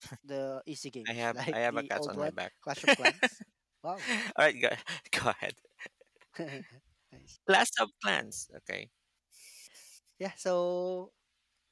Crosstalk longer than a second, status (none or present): present